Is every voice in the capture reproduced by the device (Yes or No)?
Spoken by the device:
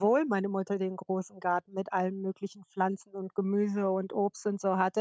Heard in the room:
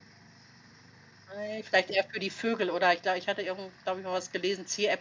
No